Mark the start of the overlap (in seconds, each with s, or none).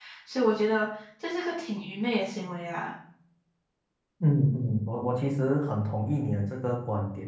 none